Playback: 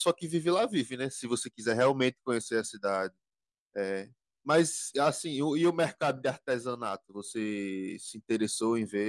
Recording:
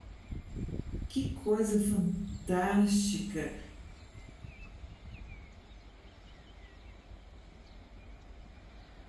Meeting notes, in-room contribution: present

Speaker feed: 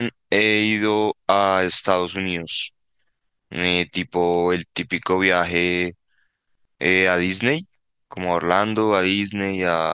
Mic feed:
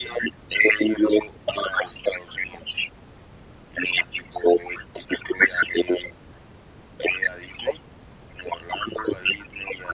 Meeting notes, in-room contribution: none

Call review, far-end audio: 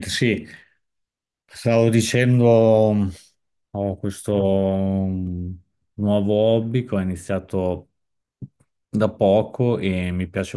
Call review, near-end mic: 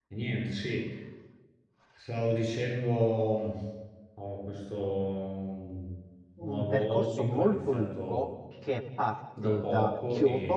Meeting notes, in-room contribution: present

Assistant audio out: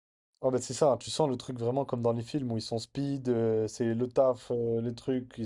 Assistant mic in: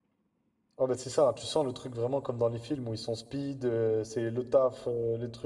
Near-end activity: none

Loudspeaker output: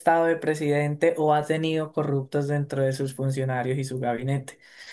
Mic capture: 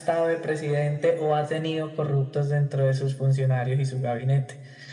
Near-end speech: none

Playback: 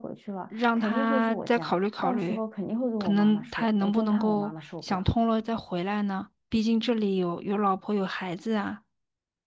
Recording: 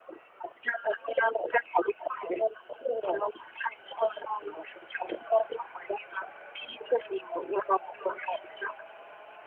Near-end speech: none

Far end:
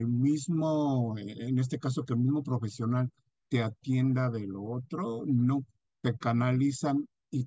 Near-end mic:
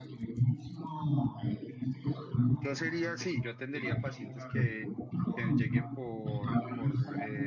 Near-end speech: present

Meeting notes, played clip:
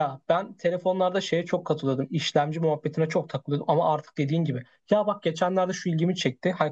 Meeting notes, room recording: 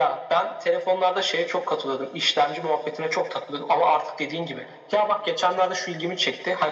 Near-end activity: none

